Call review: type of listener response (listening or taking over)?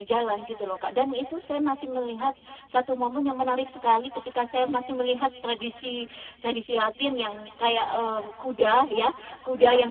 listening